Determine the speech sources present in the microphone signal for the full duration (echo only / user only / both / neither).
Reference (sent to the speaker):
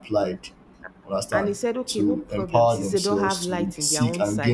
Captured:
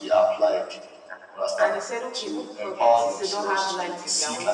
echo only